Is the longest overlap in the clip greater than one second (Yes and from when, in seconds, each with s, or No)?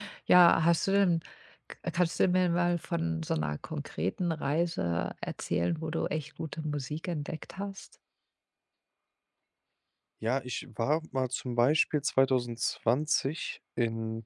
No